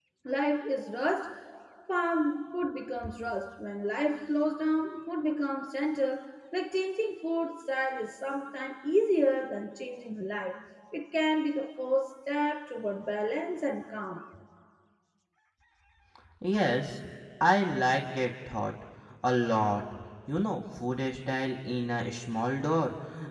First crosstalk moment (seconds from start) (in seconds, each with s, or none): none